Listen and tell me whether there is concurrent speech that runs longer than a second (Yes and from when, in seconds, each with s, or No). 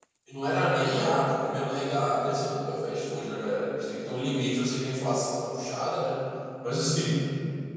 No